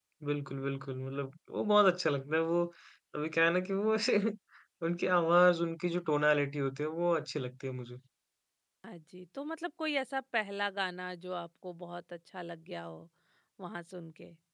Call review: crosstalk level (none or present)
none